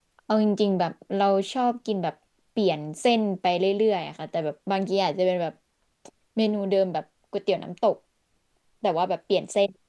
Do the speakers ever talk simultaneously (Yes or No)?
No